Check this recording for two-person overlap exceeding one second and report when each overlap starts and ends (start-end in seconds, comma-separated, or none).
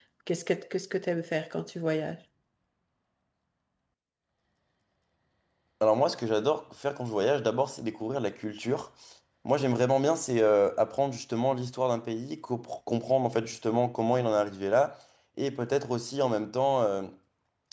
none